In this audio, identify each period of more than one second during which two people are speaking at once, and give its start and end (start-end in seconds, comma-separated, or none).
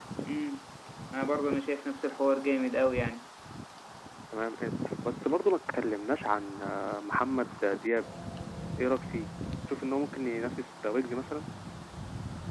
none